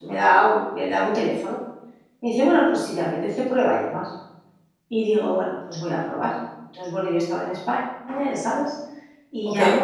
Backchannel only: Yes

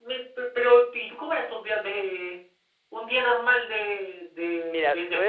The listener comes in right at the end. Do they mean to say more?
Yes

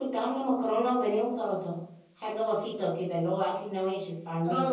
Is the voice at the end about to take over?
Yes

